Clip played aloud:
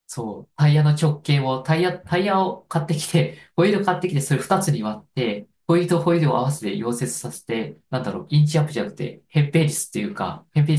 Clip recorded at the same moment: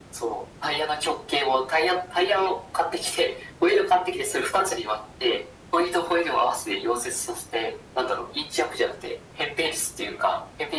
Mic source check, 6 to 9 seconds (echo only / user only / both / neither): echo only